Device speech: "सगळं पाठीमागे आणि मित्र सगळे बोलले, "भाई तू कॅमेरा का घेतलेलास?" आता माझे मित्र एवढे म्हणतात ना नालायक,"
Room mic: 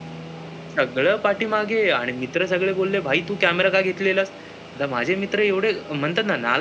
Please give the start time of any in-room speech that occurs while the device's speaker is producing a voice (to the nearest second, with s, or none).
none